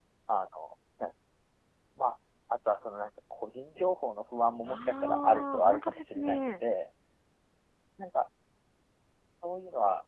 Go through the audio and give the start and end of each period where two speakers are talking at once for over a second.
4.7-6.5

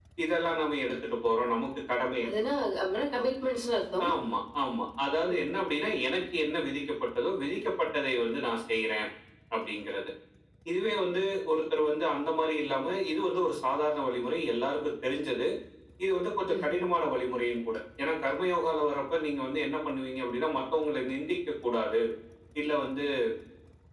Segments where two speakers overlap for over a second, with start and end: none

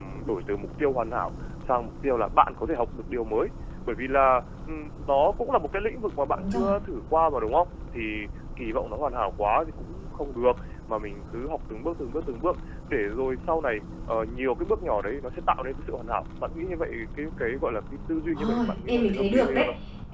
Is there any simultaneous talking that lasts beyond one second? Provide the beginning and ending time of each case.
18.4-19.6

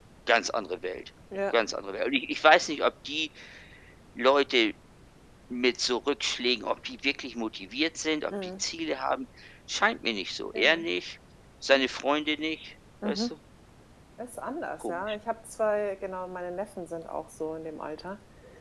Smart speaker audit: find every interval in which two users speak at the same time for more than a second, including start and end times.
none

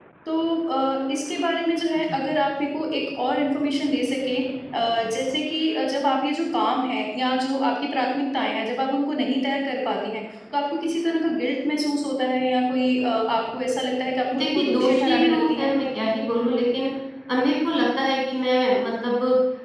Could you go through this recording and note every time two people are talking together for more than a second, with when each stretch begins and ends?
14.4-15.7

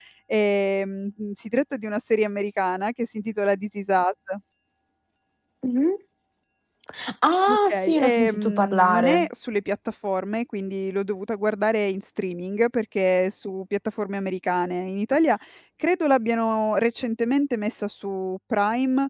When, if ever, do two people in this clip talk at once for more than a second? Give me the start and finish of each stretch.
7.5-9.3

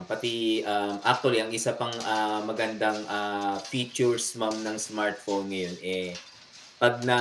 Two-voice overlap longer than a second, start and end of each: none

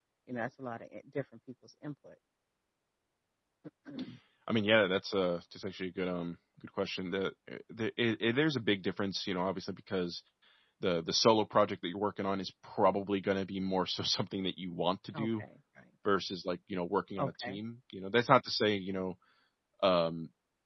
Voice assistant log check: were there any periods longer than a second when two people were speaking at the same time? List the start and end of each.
none

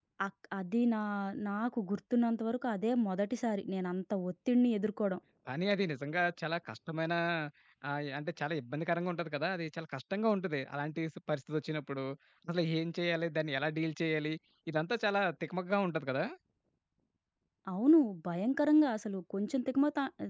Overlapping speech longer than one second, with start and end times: none

